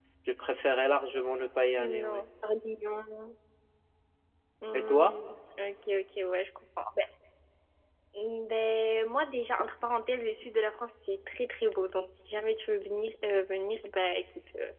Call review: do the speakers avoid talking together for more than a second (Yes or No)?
Yes